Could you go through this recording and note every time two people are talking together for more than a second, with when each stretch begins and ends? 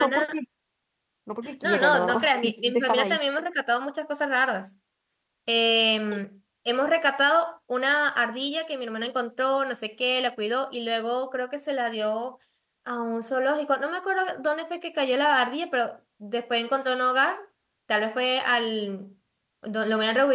1.6-3.2

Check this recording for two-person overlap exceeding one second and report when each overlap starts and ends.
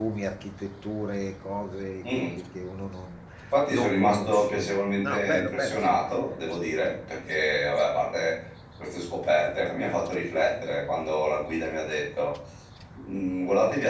3.7-5.8

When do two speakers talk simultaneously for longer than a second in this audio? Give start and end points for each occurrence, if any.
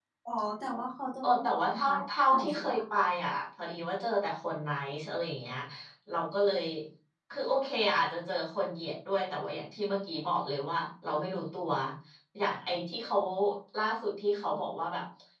1.2-2.8

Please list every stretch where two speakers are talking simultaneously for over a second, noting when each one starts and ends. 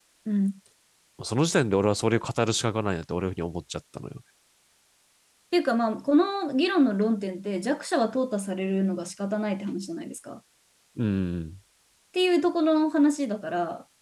none

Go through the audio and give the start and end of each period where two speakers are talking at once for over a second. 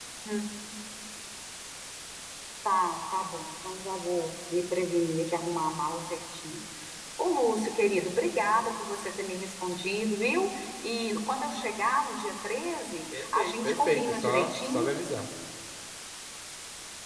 13.2-14.9

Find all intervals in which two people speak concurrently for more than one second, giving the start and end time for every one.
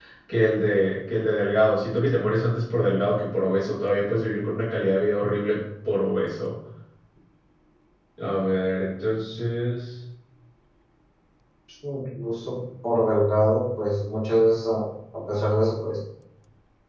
none

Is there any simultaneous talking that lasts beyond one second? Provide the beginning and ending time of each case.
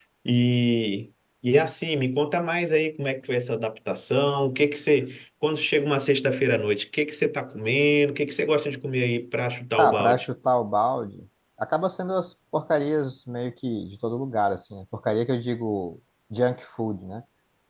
none

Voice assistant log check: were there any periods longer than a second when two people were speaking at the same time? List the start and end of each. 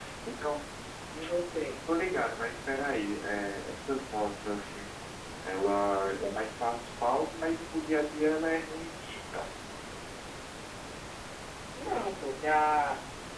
none

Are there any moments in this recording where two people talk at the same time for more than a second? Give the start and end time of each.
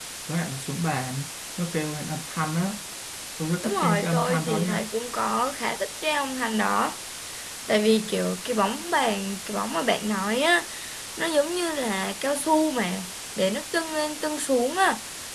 3.6-4.8

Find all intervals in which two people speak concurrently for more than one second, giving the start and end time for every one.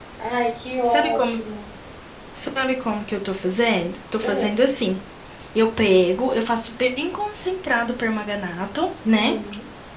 none

